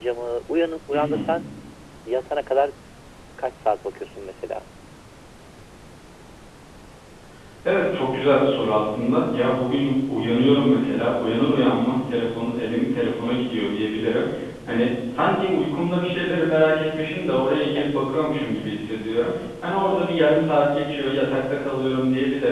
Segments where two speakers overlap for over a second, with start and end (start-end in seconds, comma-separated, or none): none